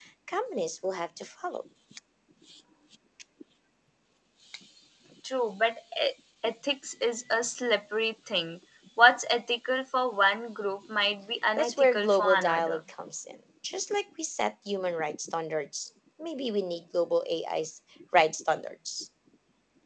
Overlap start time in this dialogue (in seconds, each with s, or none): 11.6 s